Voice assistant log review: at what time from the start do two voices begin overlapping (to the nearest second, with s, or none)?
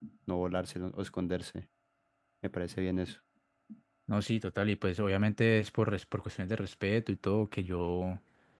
none